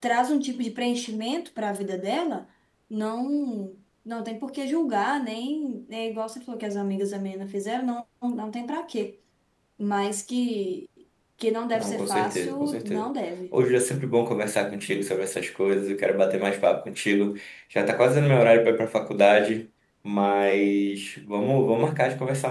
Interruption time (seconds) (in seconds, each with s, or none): 11.8 s